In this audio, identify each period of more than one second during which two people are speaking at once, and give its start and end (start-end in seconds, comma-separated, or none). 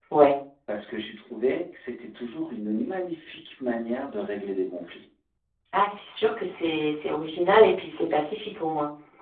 none